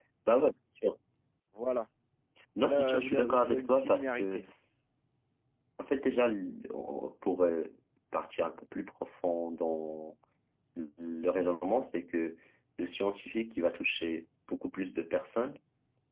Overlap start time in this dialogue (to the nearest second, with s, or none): 3 s